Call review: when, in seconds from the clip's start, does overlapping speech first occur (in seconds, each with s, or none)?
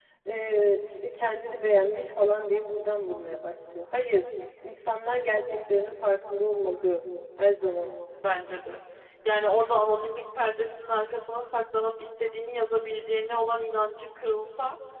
none